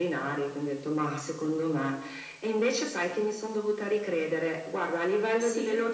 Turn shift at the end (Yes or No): No